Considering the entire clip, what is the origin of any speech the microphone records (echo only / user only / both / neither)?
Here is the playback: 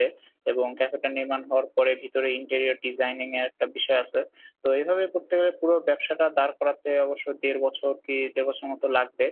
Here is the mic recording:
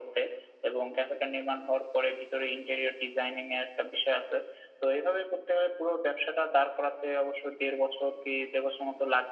echo only